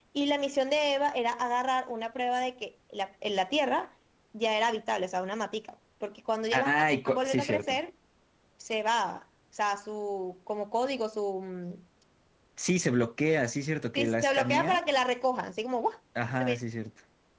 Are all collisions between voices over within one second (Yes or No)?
No